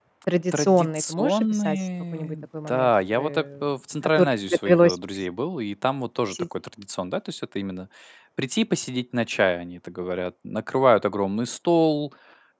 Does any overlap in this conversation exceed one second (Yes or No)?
Yes